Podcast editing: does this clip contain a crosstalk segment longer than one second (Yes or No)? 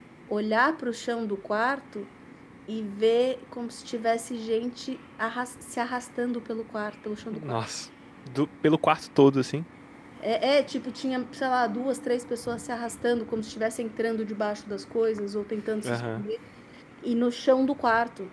No